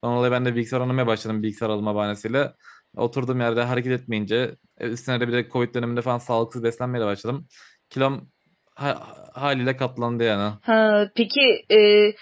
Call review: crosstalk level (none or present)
none